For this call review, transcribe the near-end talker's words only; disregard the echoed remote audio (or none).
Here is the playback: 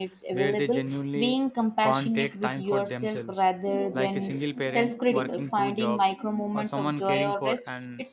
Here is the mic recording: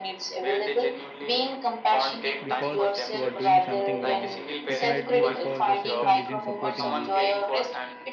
because you are doing something wrong. It might be because the system isn't supporting you.